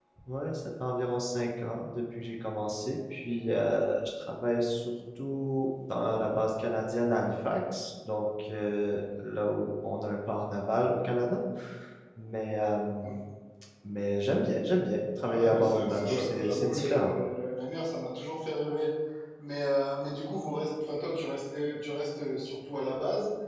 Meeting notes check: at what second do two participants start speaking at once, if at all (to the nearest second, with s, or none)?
15 s